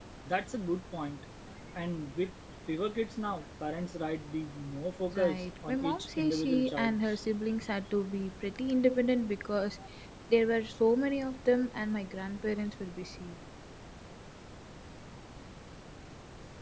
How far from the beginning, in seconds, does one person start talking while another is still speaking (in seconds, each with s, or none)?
5.1 s